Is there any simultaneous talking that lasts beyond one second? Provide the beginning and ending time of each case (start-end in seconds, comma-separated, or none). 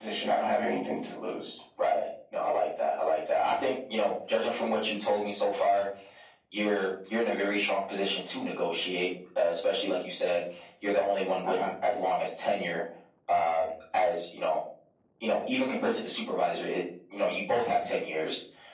none